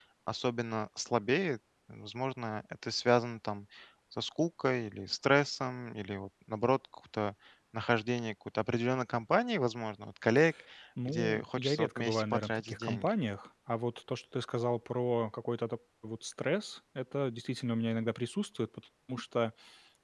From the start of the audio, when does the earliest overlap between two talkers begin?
11.1 s

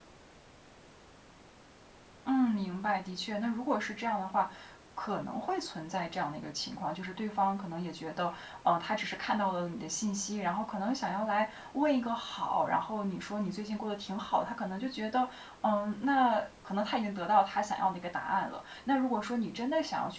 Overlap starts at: none

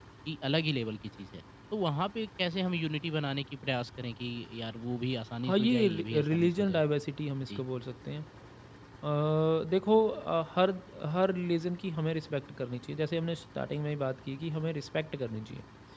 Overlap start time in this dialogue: 5.4 s

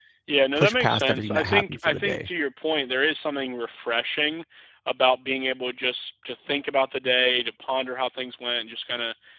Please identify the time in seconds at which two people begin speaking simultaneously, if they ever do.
0.6 s

